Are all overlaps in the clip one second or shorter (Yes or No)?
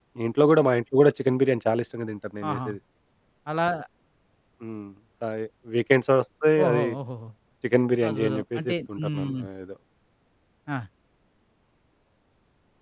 No